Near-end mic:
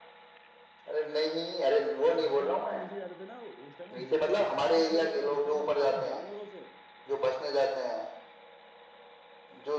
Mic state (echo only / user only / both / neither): both